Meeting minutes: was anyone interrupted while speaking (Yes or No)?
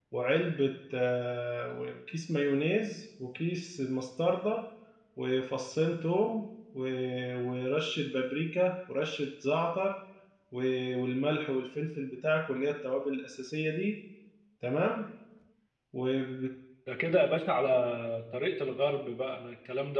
No